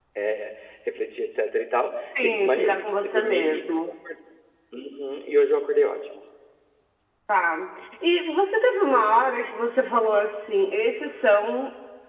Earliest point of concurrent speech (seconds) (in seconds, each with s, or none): 2.0 s